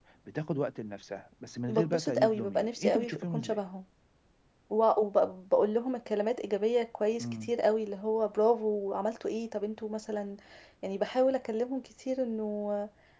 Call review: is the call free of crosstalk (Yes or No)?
No